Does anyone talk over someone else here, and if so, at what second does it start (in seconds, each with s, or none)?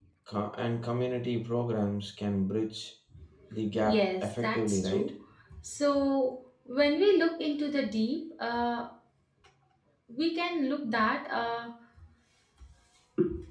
3.8 s